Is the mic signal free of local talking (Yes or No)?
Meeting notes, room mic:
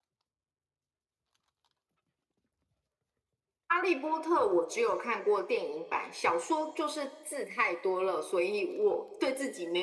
Yes